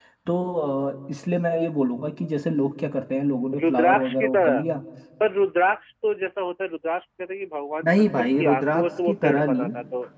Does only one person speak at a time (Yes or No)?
No